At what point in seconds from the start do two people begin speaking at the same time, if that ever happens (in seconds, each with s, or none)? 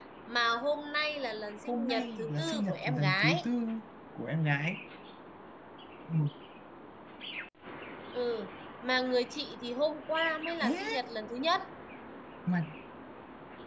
1.7 s